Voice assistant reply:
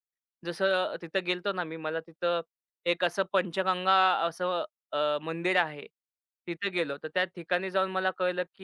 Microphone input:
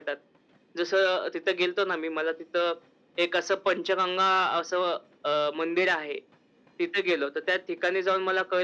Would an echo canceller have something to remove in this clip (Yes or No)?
Yes